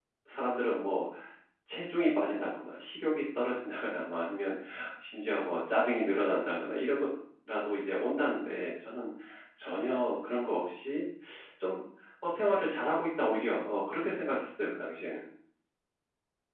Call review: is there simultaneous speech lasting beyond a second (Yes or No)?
No